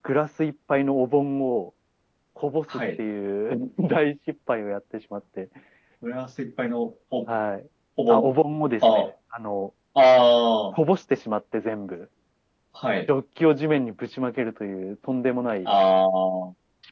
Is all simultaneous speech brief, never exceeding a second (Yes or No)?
Yes